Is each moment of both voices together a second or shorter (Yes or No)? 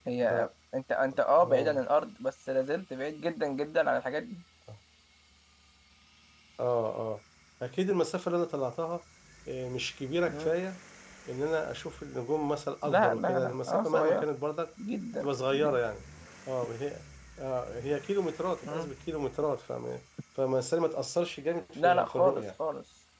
No